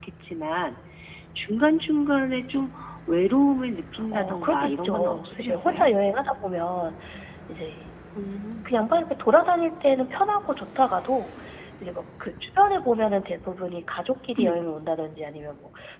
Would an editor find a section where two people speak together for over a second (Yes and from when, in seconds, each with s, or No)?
Yes, from 4.0 s